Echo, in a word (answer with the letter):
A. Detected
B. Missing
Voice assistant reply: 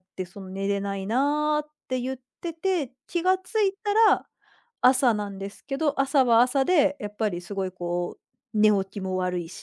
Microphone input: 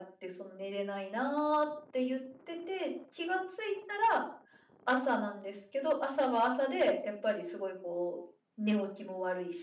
A